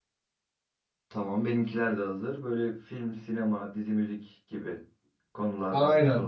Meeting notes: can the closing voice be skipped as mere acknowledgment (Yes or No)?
No